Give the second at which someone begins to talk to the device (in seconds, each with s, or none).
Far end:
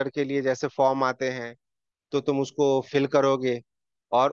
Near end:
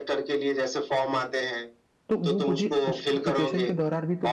2.1 s